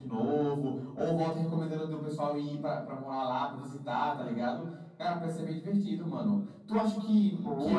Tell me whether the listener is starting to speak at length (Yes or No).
No